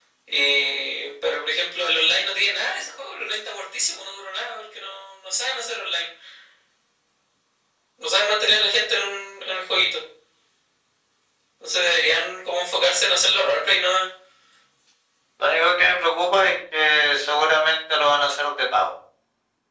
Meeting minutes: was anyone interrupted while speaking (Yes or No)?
No